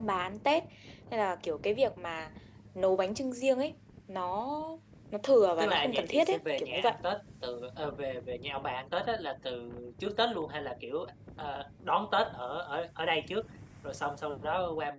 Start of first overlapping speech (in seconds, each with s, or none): 5.6 s